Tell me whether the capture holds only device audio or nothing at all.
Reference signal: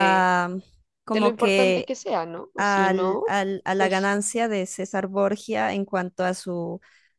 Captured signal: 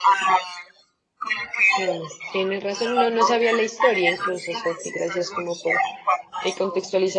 No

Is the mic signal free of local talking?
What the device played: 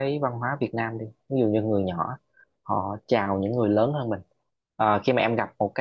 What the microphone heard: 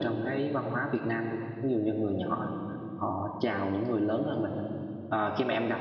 Yes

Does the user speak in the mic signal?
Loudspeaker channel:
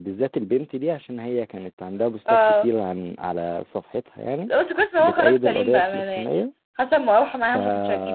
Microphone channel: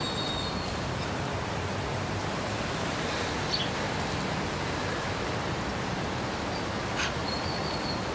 No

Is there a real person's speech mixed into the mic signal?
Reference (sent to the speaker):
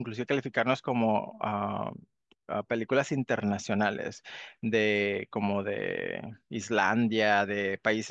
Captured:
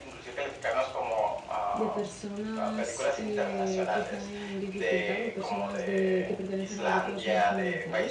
Yes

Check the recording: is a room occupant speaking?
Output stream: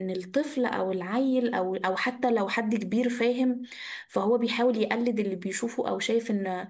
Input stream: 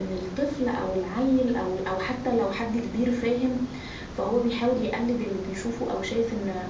No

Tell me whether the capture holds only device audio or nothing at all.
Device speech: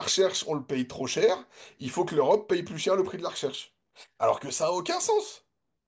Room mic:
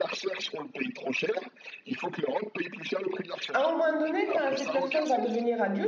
No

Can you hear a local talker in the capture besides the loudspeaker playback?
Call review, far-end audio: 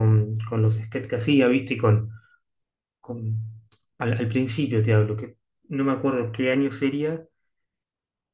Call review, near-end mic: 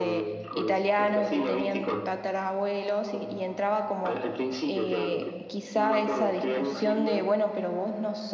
Yes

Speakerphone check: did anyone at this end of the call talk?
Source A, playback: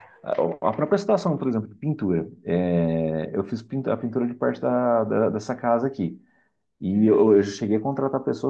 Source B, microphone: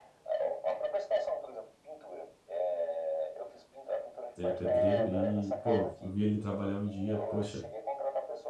Yes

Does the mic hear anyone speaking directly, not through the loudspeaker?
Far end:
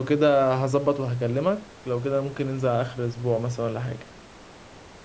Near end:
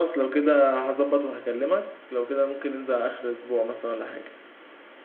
No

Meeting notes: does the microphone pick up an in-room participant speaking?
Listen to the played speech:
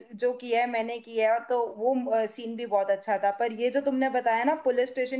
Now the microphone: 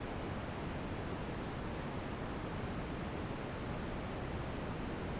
No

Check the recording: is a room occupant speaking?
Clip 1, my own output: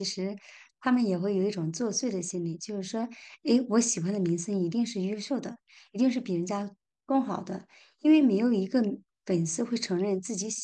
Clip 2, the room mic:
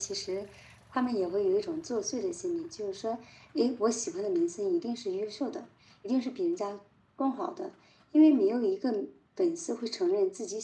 No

